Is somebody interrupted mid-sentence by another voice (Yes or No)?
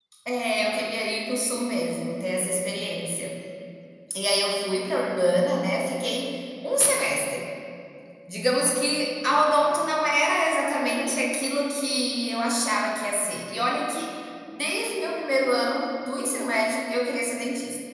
No